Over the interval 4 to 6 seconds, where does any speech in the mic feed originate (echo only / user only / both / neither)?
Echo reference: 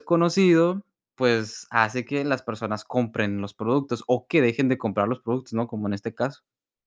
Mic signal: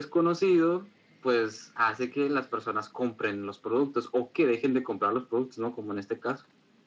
echo only